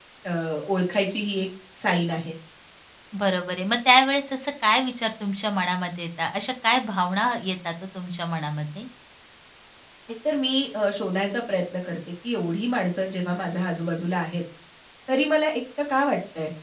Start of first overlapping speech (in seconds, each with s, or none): none